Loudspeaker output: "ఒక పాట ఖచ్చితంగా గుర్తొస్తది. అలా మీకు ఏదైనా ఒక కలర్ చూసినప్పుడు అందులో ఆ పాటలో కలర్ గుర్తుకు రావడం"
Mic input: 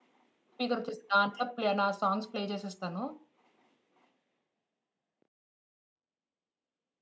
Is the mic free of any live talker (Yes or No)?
No